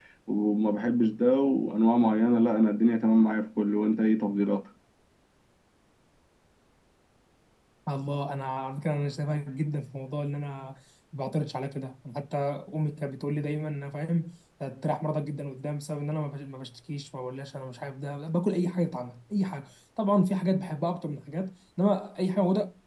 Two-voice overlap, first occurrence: none

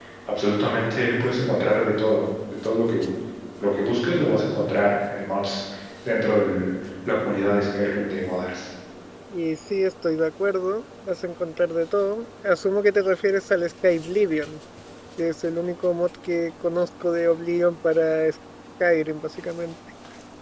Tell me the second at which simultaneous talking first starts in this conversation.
none

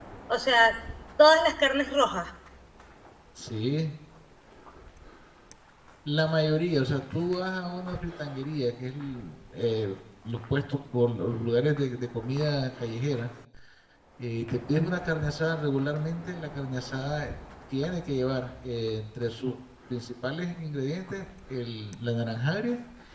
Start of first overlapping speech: none

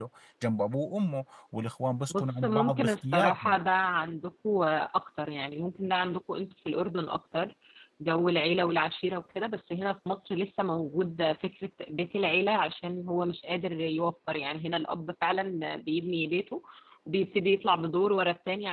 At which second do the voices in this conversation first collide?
2.1 s

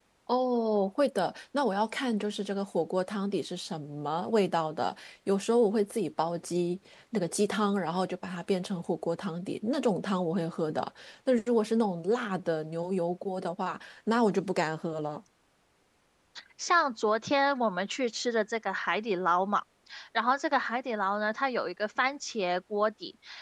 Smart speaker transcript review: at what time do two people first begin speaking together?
none

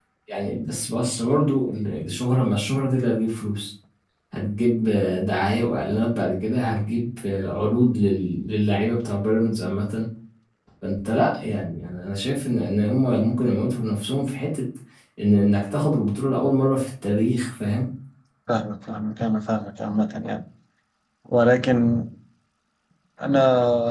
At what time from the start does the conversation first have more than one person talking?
none

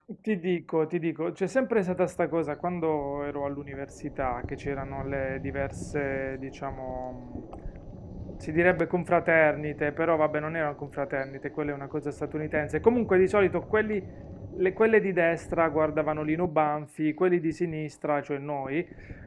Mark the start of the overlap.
none

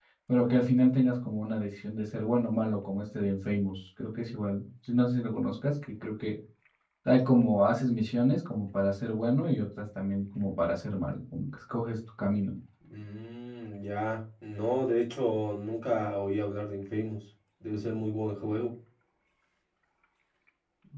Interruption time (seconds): none

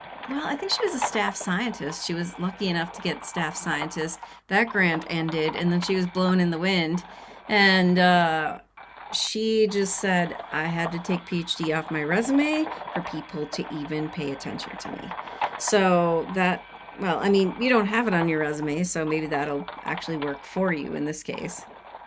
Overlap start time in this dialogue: none

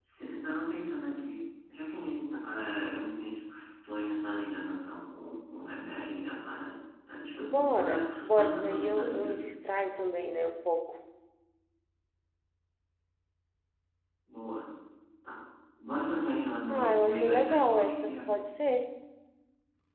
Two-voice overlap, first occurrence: 7.5 s

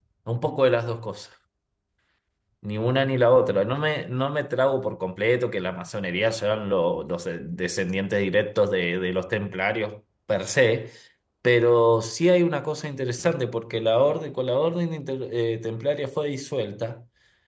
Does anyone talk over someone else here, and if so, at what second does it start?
none

